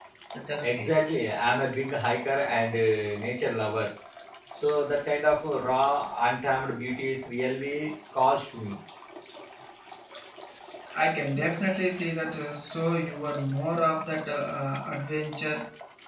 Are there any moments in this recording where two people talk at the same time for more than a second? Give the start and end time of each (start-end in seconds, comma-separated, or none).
none